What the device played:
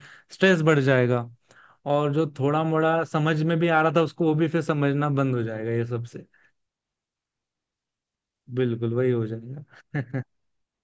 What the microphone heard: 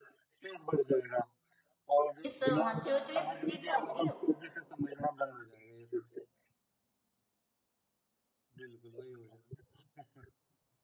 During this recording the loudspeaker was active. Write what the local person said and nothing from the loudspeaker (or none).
ये सब हाँ चोचले बाजी तो होगी अब